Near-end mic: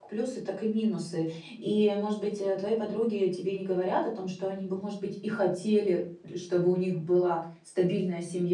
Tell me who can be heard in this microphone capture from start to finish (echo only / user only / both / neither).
user only